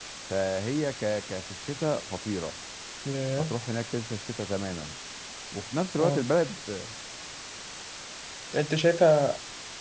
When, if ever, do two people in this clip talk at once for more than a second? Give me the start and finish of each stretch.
none

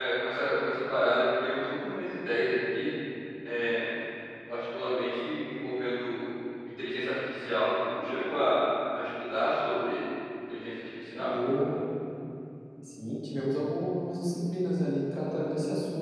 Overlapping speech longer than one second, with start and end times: none

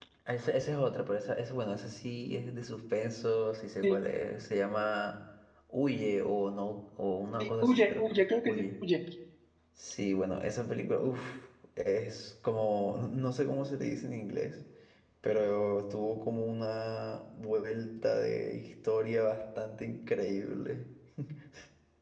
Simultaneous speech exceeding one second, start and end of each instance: 7.4-8.6

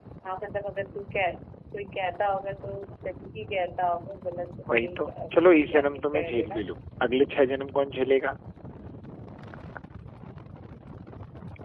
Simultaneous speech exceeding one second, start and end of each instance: 4.8-6.6

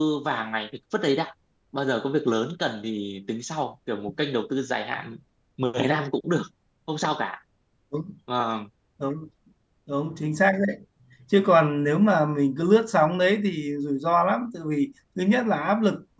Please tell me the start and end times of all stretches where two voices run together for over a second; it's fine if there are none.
none

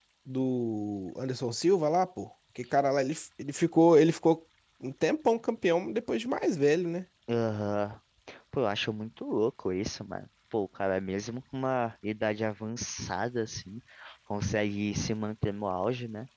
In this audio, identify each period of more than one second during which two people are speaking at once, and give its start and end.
none

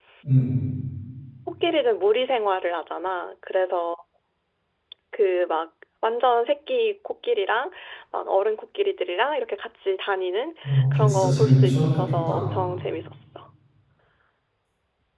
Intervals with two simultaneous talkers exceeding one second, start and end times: 10.6-12.5

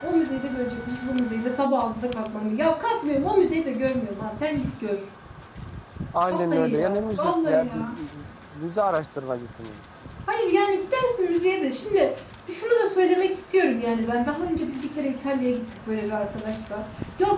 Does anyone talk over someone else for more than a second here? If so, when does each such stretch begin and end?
6.4-7.9

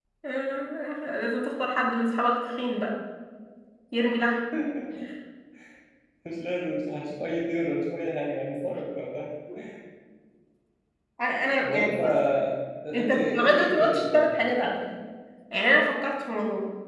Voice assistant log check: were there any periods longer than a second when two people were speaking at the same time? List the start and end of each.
12.9-14.3

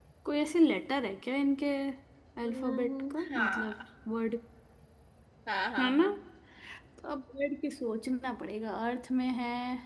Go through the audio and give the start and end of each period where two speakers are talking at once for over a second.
2.4-3.8

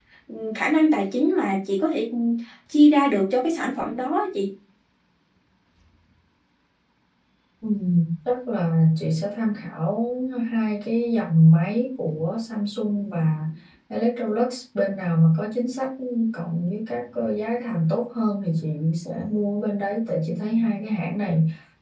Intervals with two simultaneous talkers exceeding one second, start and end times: none

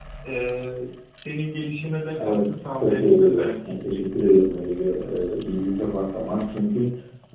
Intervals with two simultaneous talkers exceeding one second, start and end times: 2.2-3.8

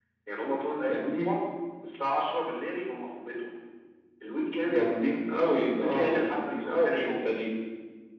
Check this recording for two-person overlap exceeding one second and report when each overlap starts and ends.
5.8-7.3

